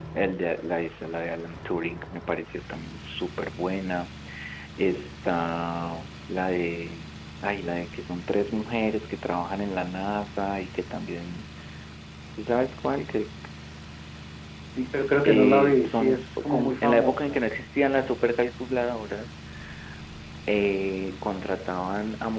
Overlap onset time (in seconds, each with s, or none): 15.2 s